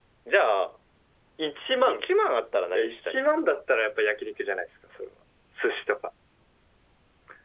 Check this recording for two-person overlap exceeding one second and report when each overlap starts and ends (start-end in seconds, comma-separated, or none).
none